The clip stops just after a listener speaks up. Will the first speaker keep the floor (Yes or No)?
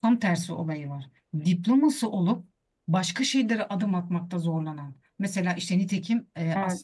Yes